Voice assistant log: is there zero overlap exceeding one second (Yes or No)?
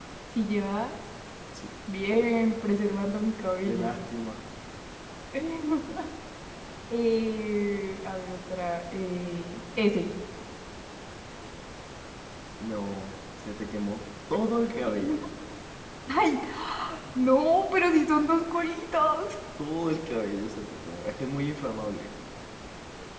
Yes